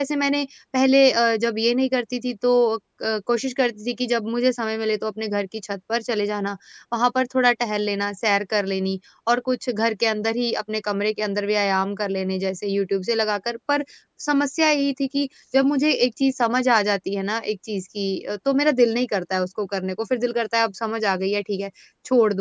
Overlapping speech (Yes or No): No